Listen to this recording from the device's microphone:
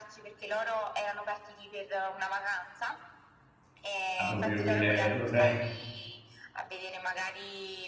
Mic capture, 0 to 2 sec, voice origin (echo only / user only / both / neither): echo only